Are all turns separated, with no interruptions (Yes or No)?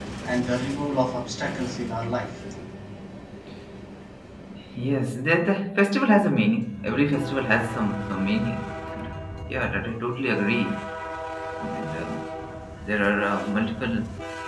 Yes